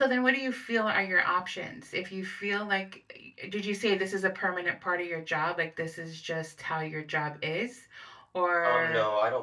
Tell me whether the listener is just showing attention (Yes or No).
No